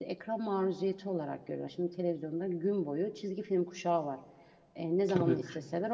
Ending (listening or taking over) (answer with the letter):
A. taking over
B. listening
B